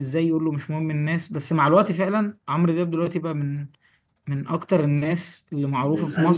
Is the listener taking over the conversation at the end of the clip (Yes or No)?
Yes